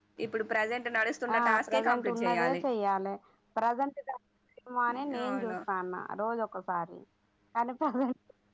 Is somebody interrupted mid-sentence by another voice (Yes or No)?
Yes